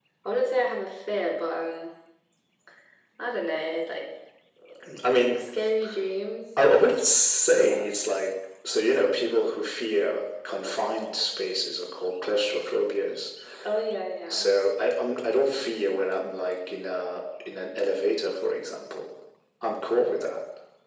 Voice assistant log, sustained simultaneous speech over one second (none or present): none